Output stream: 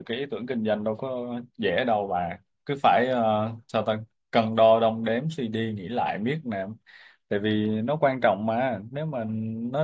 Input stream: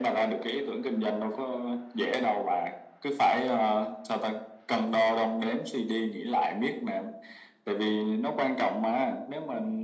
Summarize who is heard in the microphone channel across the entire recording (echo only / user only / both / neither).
echo only